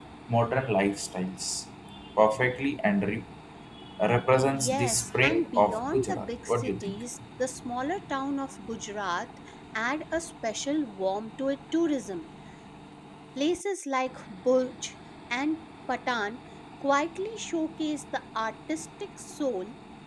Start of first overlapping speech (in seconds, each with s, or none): 4.5 s